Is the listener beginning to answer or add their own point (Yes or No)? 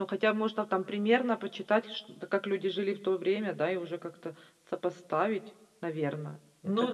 Yes